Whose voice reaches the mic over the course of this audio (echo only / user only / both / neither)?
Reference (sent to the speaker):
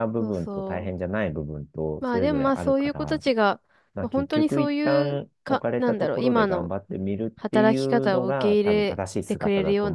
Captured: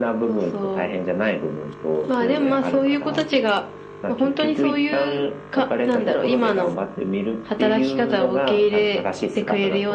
echo only